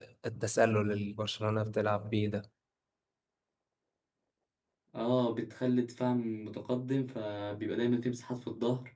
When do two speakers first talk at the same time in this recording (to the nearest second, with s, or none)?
none